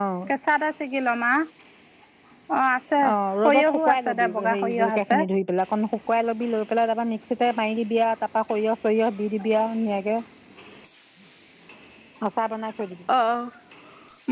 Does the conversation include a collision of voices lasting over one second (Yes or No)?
Yes